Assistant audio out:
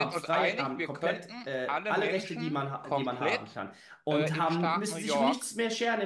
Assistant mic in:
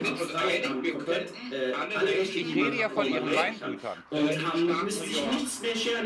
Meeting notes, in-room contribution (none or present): present